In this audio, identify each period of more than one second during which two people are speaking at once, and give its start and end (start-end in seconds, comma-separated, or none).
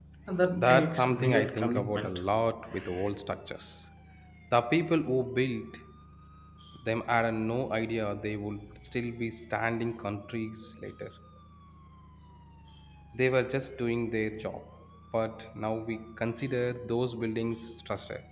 0.5-2.2